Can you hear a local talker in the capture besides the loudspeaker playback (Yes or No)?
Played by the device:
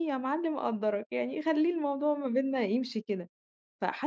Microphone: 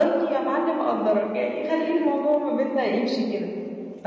No